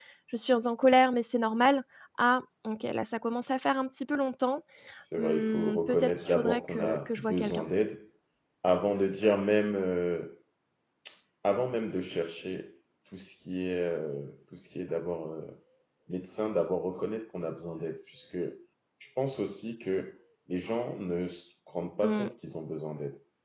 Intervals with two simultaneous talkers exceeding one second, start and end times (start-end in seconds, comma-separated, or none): 5.2-7.7